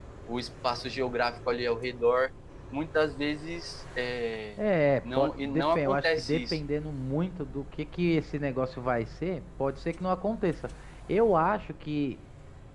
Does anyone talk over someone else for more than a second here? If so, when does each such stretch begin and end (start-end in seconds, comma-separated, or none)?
5.0-6.6